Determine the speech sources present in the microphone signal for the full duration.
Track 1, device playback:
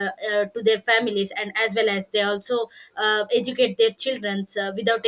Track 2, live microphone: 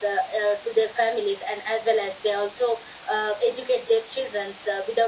echo only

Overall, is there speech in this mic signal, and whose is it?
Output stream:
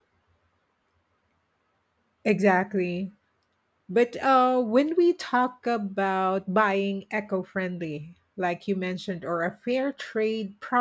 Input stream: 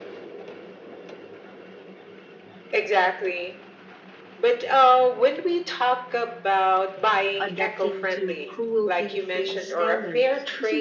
both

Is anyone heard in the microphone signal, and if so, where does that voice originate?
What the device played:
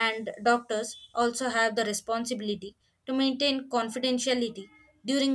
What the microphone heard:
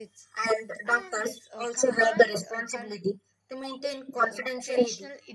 both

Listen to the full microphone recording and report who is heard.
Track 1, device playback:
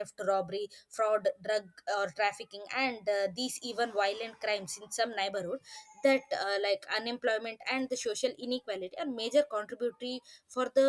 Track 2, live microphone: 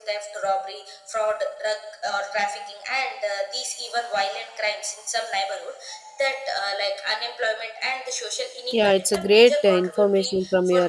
both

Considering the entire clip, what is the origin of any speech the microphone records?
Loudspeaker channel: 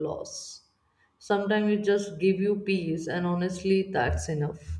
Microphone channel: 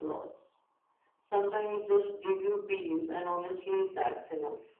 echo only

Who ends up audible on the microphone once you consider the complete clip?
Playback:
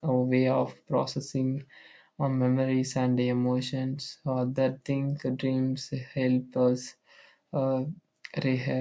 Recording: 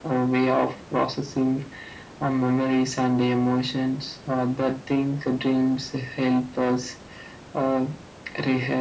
echo only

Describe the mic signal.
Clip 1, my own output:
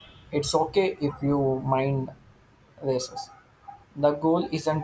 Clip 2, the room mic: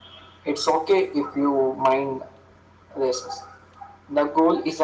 echo only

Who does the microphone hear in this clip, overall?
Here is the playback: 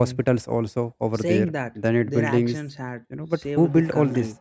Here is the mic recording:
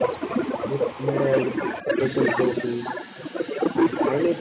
both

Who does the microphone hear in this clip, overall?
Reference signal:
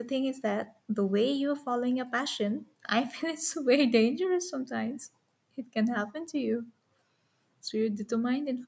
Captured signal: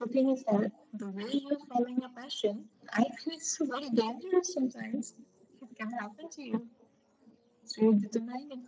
echo only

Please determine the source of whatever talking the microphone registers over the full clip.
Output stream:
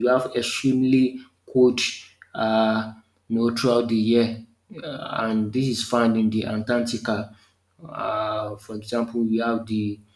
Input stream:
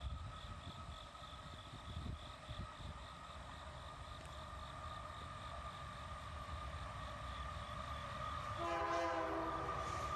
neither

